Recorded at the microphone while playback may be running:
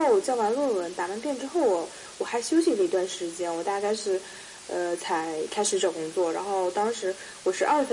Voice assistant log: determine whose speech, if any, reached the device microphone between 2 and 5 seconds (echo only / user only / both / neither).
echo only